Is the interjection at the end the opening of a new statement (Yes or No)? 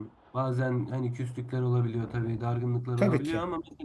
No